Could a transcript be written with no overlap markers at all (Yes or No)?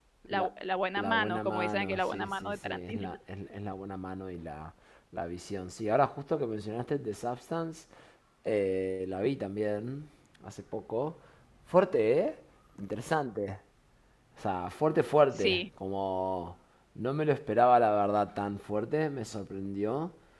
No